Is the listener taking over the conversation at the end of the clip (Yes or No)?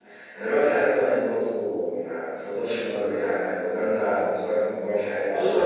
Yes